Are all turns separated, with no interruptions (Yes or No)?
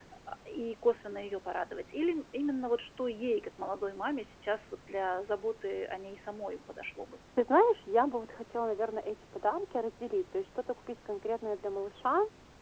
Yes